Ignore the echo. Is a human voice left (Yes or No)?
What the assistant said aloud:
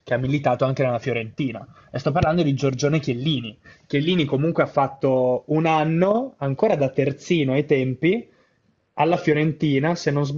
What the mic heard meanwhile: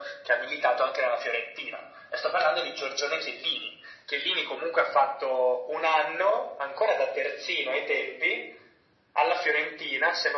No